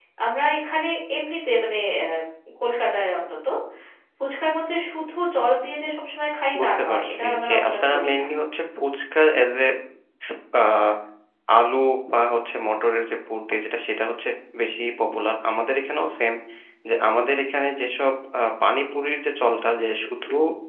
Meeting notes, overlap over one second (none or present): present